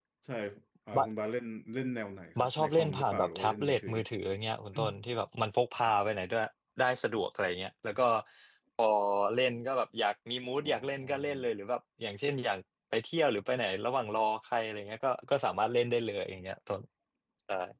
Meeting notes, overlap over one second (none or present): present